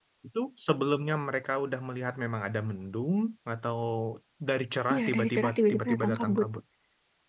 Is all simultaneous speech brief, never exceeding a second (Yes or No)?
No